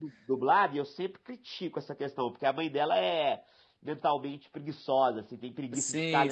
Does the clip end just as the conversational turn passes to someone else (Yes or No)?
No